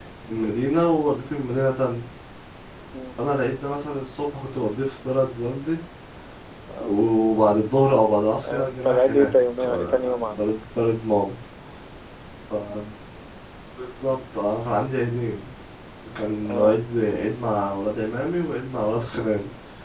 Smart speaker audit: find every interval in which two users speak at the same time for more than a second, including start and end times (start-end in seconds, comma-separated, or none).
8.4-10.5